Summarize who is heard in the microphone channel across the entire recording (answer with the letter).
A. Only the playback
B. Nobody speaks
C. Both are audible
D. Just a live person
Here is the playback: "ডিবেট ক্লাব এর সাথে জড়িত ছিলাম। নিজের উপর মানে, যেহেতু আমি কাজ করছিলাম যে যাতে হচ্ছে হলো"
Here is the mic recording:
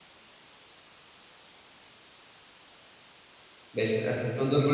D